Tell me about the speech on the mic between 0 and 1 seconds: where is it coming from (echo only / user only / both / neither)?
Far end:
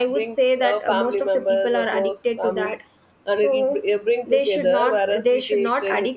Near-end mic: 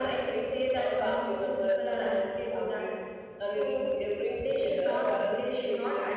echo only